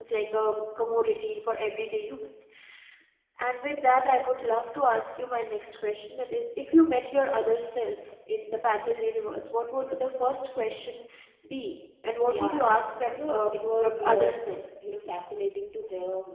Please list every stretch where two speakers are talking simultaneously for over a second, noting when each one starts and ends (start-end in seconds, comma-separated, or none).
13.1-14.3